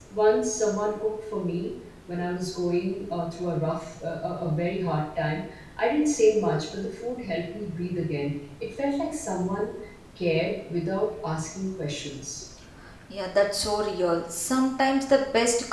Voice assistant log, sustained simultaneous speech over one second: none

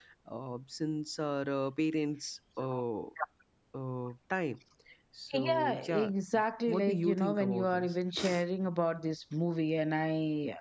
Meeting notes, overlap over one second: present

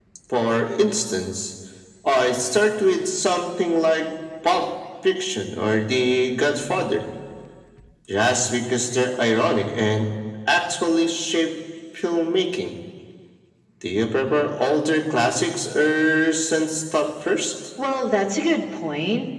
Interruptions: none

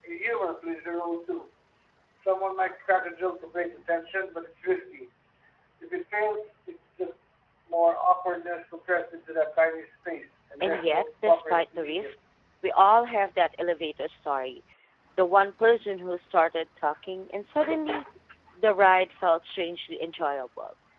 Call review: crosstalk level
present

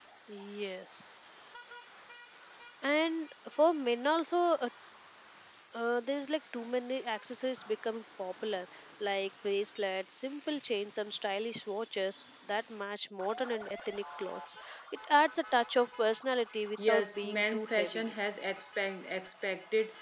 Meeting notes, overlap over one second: present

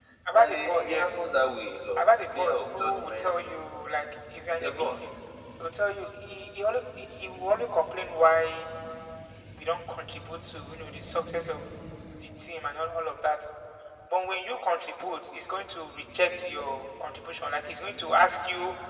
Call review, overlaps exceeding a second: present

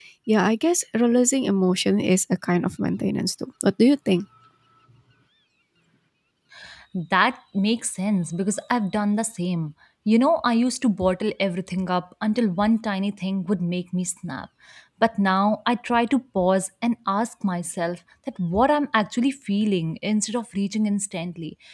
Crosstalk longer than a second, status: none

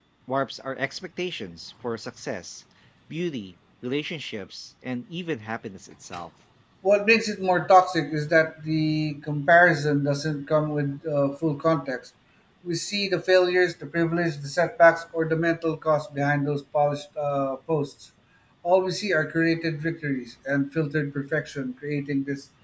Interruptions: none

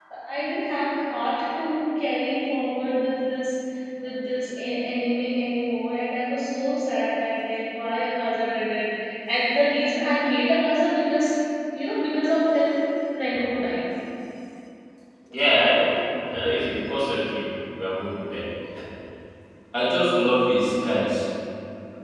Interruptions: none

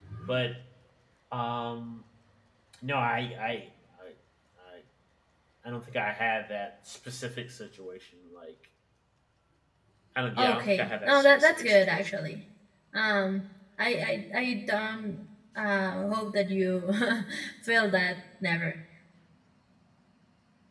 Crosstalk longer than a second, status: present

